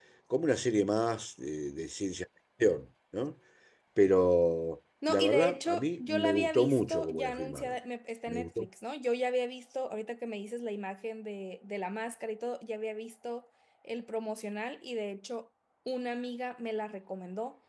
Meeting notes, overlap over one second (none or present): present